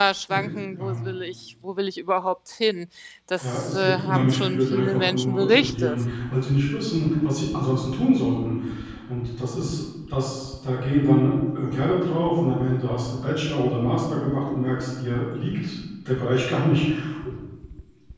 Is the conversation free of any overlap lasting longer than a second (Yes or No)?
No